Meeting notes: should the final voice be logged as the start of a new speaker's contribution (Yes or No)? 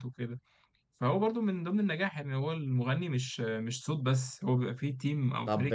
Yes